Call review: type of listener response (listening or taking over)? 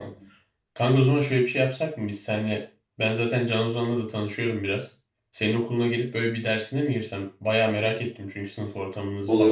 taking over